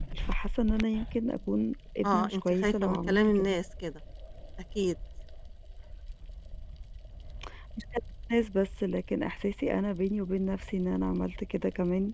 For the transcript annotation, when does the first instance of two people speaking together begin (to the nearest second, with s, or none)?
2 s